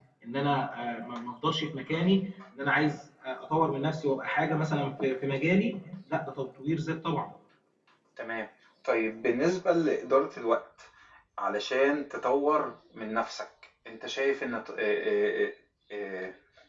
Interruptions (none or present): none